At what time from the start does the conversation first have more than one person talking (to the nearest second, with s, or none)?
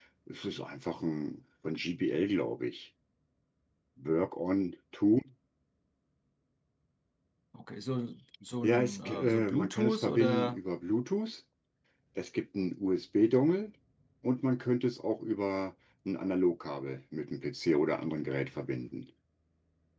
9 s